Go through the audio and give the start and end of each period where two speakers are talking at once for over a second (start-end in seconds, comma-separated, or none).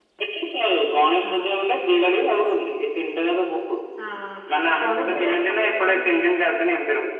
4.8-6.2